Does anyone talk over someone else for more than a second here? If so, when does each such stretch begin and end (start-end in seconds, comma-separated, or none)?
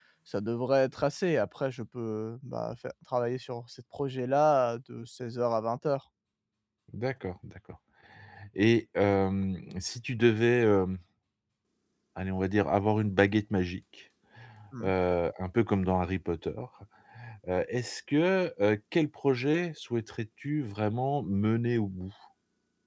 none